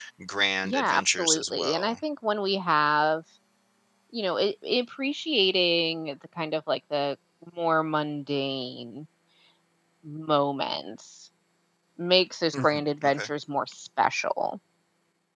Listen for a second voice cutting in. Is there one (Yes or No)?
Yes